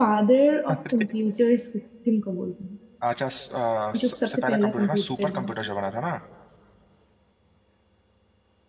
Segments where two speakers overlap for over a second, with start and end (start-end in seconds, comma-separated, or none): 4.0-5.5